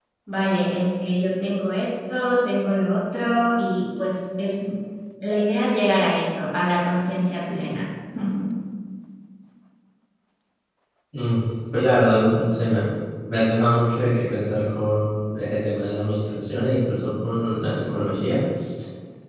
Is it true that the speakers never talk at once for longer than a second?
Yes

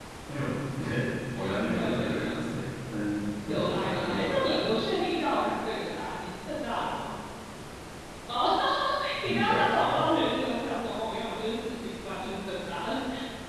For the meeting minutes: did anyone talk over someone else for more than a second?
Yes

